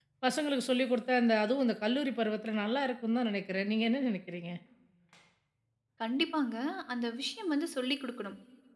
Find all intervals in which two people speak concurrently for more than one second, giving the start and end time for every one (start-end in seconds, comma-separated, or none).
none